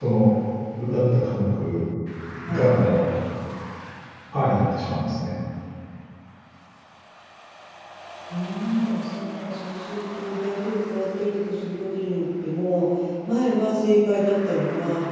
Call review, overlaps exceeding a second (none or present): none